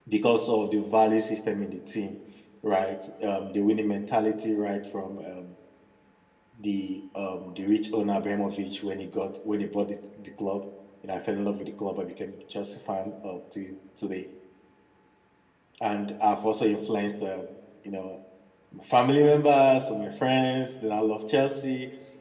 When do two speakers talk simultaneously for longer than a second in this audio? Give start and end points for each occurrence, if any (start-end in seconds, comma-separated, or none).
none